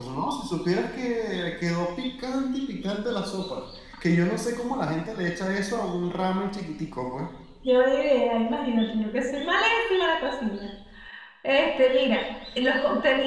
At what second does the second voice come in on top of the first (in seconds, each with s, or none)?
none